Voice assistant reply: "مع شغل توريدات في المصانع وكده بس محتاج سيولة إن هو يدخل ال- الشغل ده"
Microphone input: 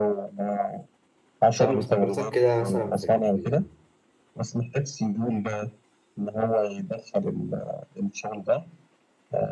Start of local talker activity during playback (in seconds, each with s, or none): 1.6 s